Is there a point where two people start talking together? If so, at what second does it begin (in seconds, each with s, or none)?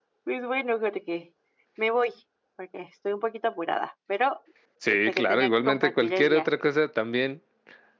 4.9 s